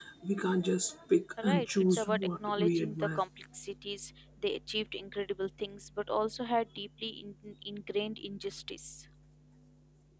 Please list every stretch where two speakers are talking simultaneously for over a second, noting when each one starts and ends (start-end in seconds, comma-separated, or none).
1.4-3.2